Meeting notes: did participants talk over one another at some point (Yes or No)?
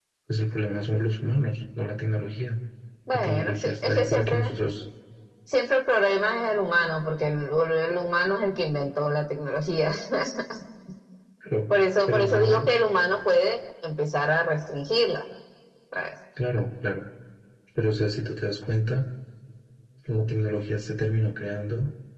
Yes